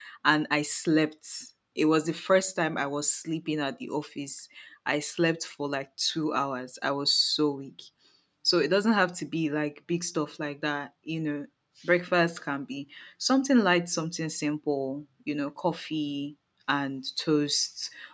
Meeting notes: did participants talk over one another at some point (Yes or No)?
No